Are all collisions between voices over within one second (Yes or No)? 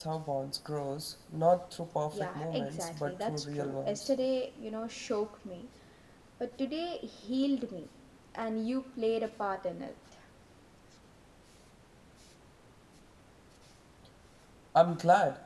No